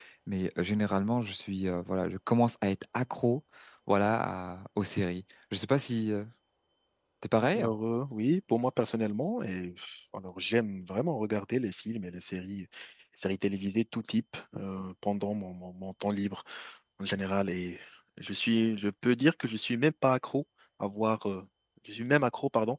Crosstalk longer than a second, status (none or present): none